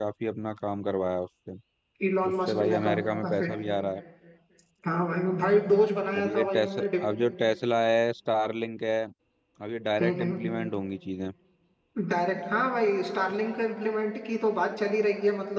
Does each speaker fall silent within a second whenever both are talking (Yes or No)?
No